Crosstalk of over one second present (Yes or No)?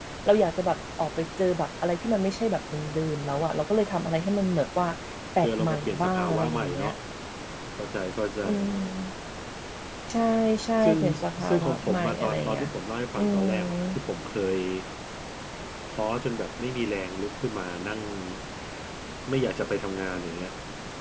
Yes